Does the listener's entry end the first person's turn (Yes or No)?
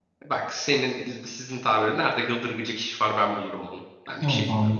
Yes